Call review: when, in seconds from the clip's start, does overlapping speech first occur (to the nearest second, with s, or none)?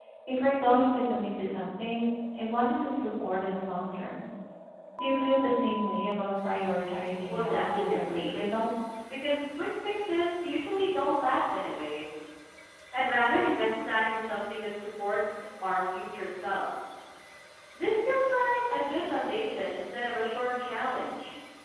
7 s